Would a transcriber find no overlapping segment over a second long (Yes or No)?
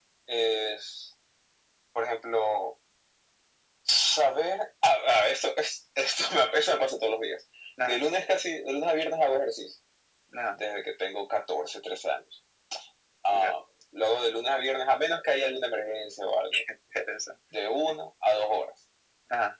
Yes